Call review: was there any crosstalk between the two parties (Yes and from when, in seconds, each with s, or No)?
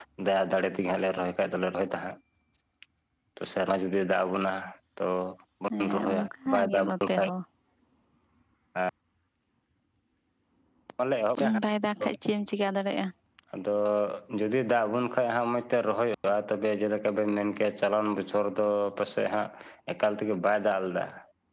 Yes, from 5.8 s